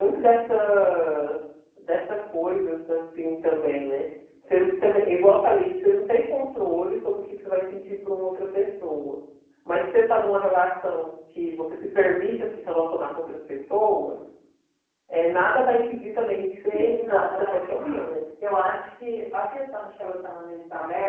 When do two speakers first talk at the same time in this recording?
16.7 s

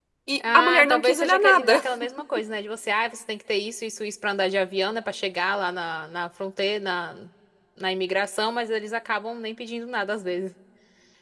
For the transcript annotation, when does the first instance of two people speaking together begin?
0.5 s

